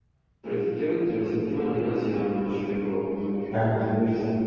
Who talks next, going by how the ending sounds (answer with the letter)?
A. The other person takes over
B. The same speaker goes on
B